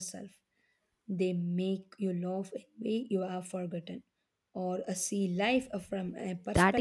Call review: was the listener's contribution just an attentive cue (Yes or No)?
No